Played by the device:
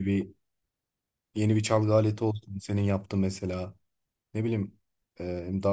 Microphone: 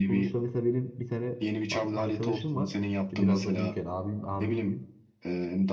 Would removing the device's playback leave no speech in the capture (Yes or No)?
No